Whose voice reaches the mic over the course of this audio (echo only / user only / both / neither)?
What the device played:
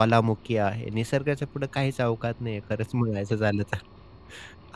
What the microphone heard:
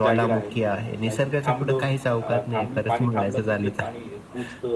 both